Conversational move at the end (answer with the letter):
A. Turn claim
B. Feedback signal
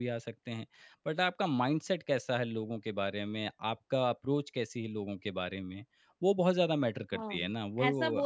A